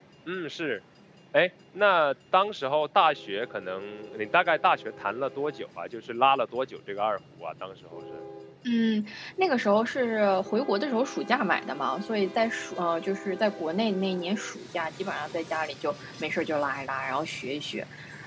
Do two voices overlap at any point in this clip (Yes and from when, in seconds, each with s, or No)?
No